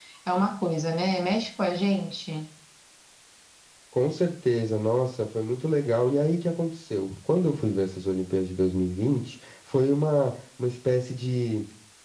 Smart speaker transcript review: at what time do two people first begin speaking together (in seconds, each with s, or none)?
none